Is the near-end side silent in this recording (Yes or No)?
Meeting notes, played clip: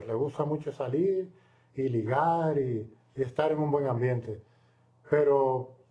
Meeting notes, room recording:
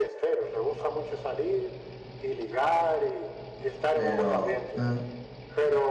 No